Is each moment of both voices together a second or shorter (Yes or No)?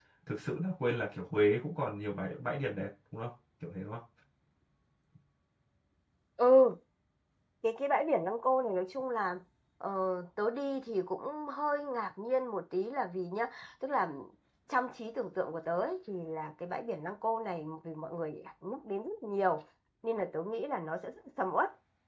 Yes